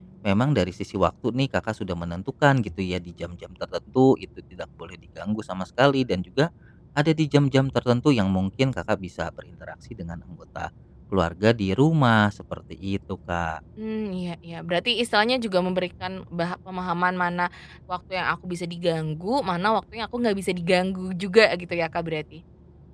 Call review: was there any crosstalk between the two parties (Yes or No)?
No